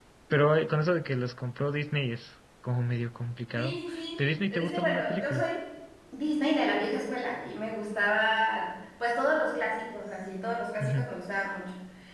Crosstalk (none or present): present